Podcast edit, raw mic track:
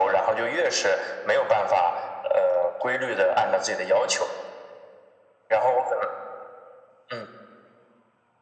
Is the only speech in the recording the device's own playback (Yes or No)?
Yes